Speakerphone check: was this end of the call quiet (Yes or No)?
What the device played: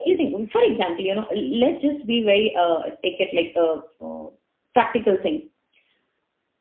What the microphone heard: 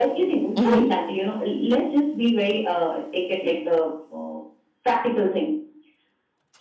No